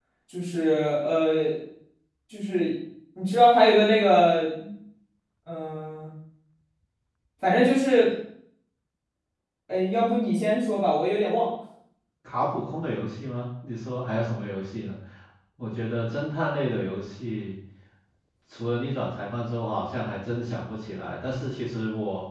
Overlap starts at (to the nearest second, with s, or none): none